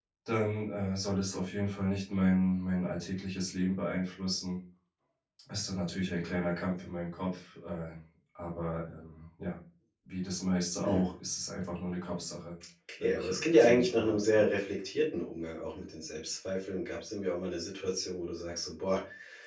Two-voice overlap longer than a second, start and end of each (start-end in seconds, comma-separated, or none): 13.1-14.4